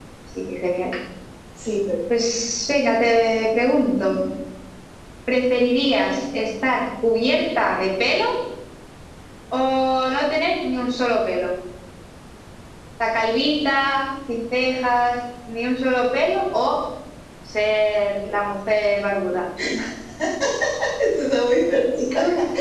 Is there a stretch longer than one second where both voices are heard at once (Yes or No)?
No